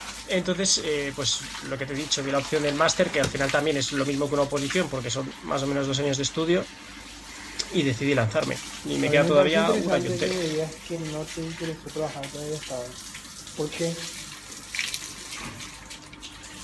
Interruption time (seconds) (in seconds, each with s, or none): 9.0 s